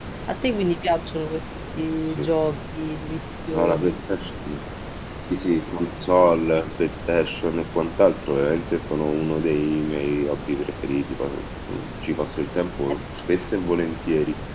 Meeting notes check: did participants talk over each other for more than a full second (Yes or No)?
No